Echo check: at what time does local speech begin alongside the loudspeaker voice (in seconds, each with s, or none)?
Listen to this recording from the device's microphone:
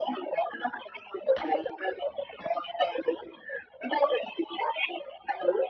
none